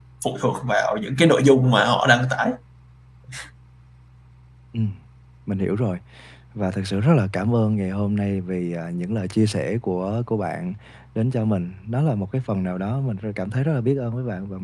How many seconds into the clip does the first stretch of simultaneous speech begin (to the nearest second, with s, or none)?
none